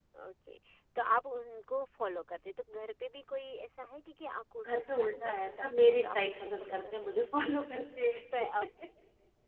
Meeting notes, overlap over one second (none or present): present